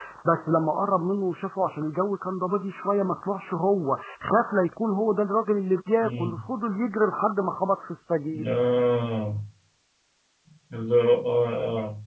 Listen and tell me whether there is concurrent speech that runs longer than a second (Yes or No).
No